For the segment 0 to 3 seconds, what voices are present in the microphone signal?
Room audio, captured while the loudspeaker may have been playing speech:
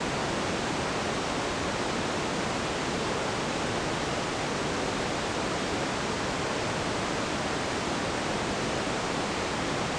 neither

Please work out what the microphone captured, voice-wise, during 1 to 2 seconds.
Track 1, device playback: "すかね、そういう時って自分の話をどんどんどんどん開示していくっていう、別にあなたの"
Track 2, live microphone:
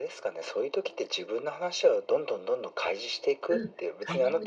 echo only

